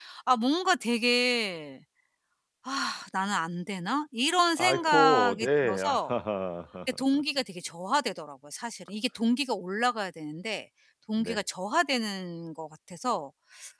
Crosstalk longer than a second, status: present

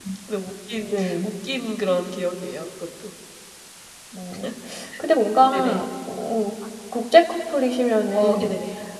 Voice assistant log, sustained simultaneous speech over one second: none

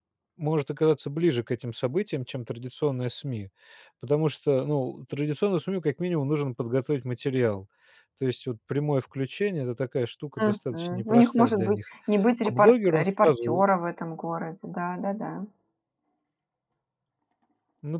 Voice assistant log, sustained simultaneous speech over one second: present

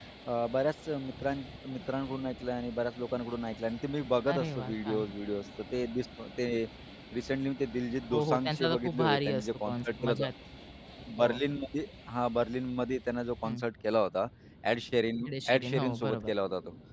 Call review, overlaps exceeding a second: present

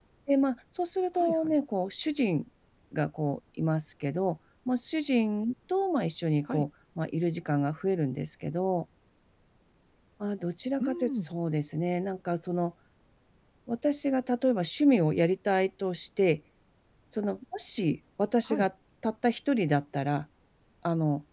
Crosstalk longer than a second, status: none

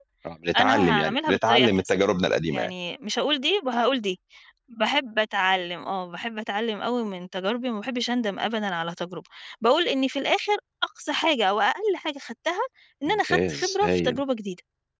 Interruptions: present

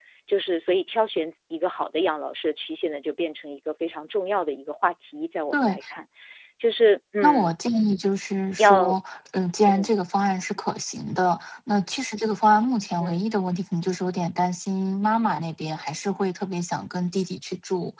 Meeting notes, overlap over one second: none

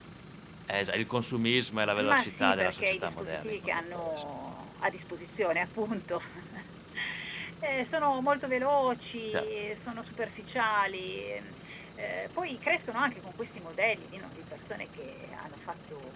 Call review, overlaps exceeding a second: present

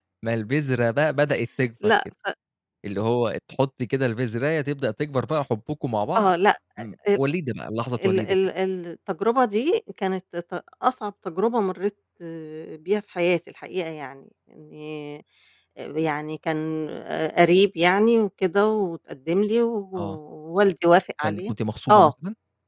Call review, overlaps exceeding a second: none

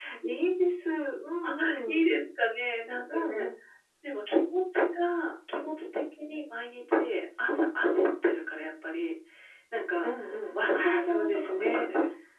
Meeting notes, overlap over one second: present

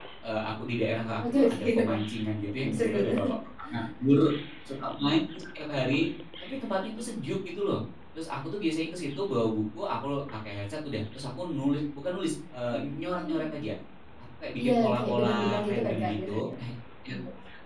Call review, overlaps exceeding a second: present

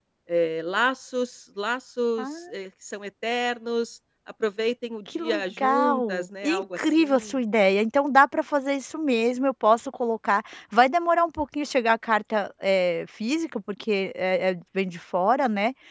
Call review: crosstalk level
present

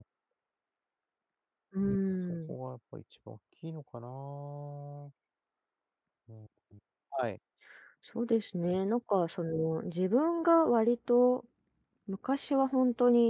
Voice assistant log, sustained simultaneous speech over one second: none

